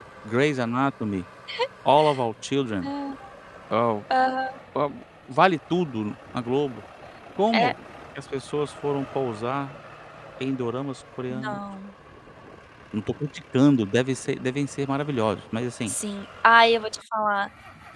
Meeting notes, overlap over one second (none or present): none